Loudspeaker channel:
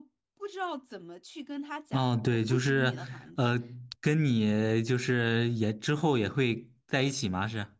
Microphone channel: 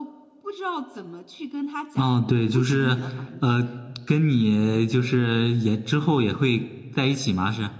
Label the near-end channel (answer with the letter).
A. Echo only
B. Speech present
A